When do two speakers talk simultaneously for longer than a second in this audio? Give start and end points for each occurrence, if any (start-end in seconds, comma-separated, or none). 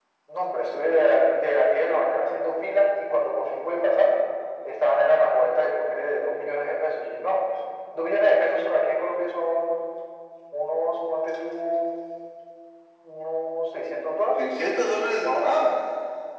none